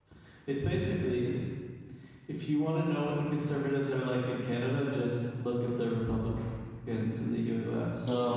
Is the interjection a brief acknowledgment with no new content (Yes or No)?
No